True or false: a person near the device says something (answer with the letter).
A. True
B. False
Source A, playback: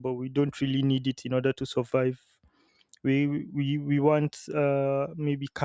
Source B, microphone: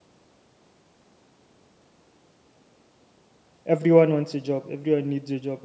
A